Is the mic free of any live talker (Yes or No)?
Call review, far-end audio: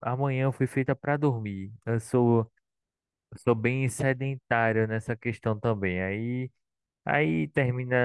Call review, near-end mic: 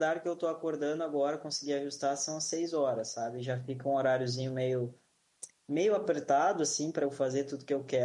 No